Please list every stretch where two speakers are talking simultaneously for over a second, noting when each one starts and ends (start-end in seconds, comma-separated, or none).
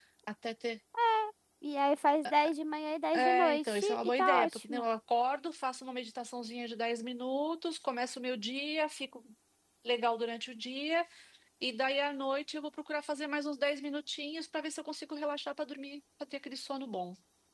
3.1-4.9